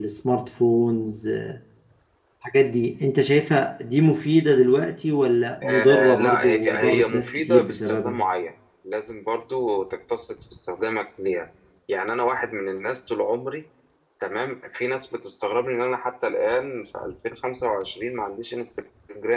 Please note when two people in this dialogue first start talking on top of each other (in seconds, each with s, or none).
5.6 s